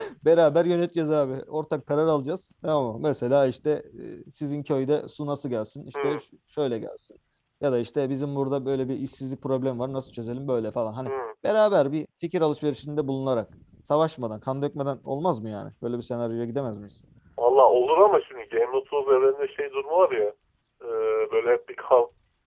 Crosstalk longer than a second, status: none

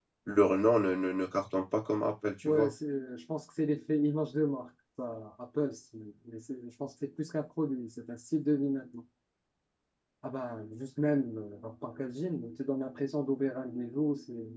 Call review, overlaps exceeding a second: none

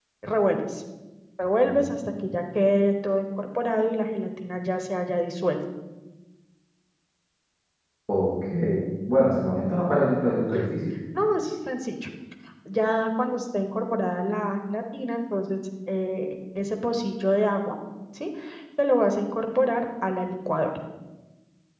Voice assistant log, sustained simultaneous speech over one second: none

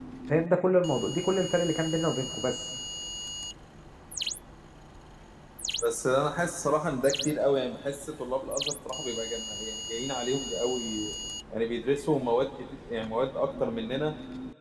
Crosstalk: none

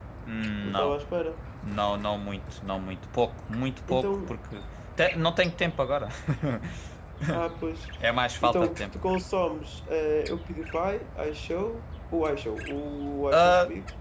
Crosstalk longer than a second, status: none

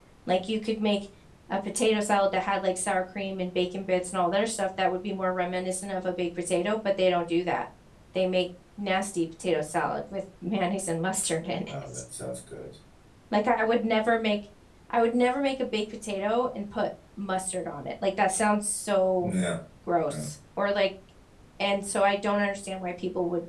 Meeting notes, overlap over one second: none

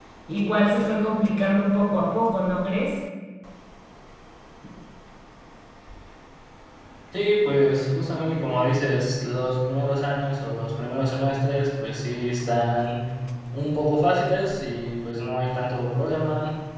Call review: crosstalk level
none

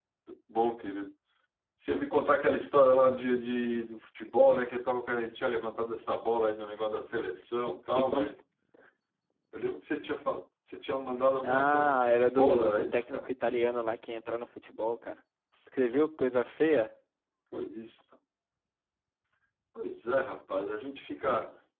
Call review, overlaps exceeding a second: present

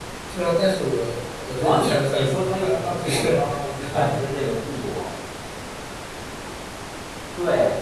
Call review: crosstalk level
present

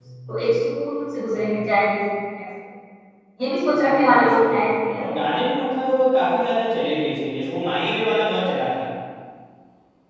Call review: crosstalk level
present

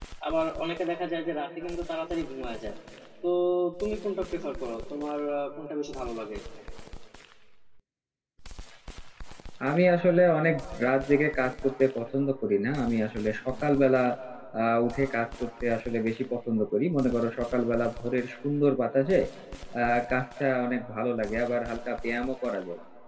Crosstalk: none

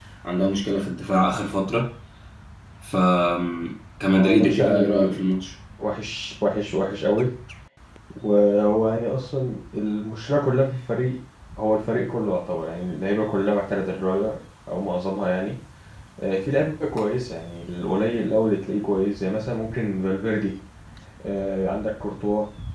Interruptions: present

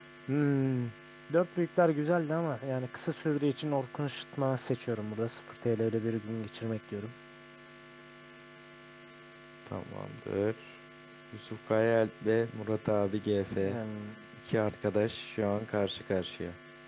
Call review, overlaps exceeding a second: none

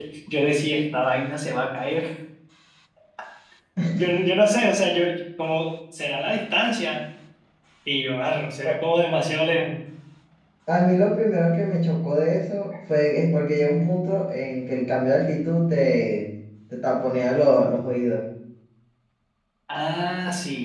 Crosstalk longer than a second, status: none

